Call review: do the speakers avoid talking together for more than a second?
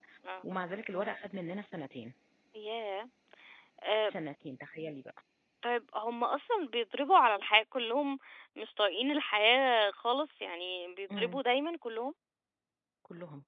Yes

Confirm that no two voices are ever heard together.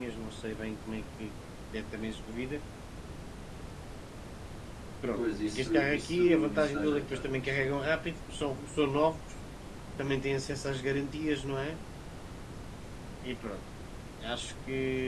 No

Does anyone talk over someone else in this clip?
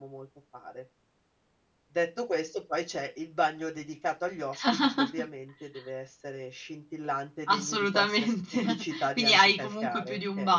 Yes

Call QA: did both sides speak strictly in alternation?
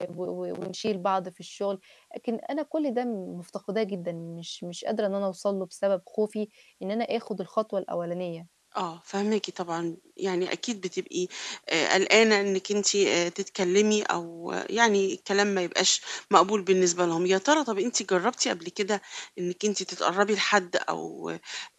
Yes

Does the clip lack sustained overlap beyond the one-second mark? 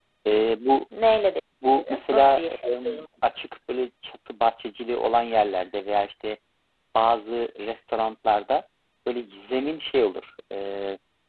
No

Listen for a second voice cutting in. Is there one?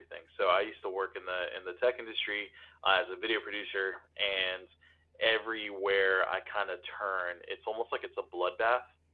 No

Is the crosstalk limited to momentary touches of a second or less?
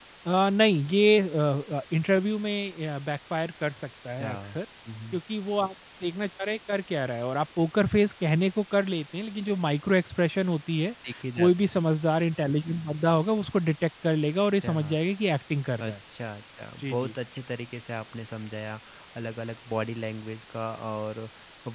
Yes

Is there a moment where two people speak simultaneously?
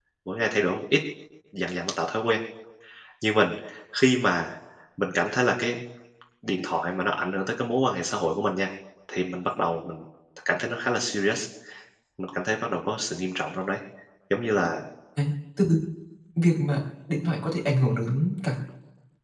No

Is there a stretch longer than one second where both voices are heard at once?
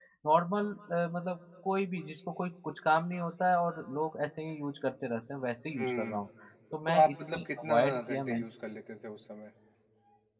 Yes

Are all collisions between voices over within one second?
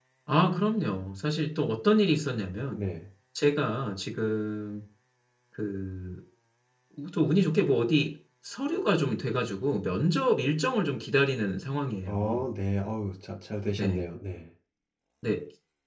Yes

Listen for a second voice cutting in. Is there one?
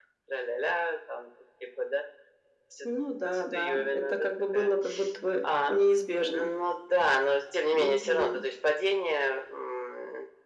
Yes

